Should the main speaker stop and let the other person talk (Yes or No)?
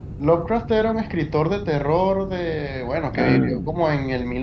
No